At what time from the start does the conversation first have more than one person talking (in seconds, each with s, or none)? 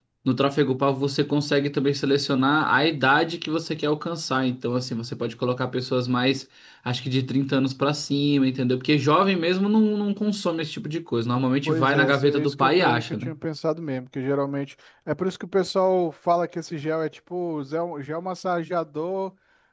11.7 s